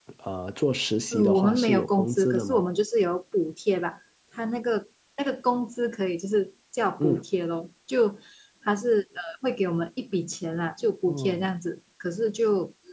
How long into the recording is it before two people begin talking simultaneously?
1.1 s

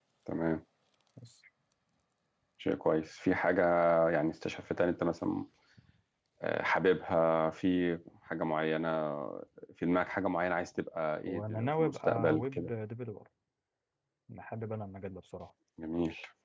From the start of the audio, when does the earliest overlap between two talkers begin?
11.2 s

